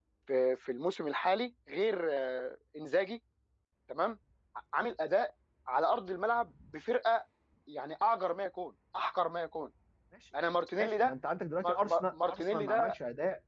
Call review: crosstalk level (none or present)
present